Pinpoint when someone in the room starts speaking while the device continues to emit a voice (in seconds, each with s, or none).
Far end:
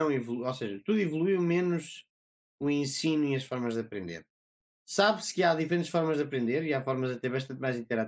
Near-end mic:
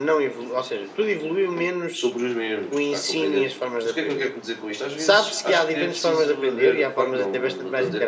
1.9 s